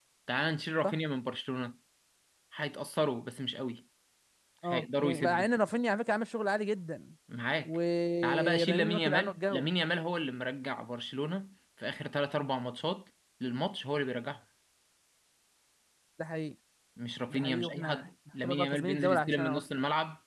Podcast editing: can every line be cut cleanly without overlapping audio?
No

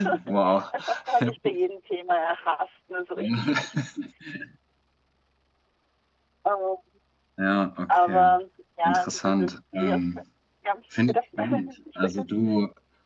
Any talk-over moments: Yes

